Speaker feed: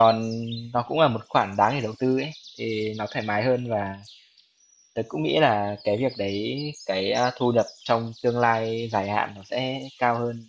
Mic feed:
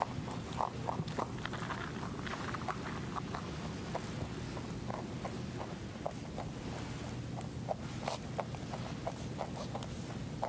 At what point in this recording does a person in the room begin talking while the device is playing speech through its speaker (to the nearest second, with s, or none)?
none